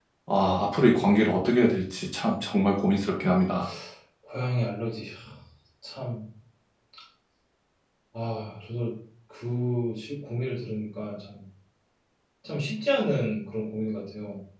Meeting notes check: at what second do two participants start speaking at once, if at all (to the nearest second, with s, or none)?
none